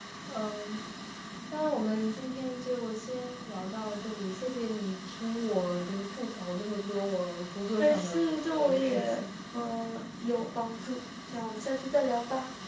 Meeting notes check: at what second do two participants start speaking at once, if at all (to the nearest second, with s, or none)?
8 s